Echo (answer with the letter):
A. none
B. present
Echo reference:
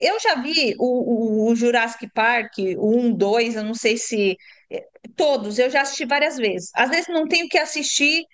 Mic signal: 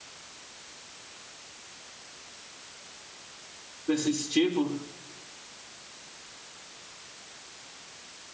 A